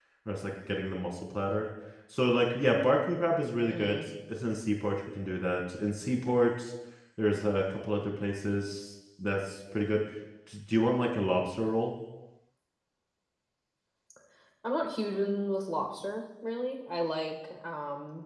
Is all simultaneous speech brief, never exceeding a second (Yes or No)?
Yes